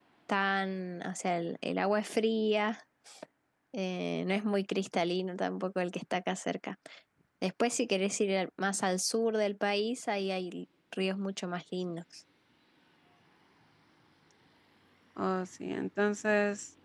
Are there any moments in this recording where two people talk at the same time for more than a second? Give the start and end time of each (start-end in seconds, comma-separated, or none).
none